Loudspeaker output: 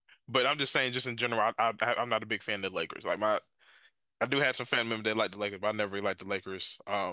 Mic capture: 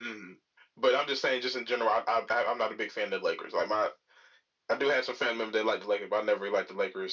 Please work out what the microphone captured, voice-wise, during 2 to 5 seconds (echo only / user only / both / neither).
echo only